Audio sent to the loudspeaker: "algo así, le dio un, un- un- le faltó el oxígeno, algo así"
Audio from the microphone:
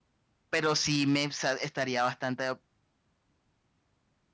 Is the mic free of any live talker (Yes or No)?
No